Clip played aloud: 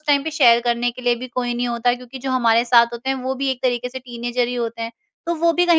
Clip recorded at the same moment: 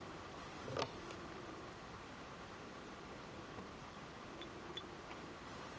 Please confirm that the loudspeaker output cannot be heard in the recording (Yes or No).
Yes